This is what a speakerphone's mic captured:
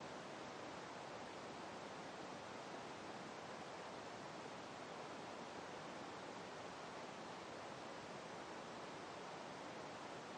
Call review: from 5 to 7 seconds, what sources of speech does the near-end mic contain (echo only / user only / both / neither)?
neither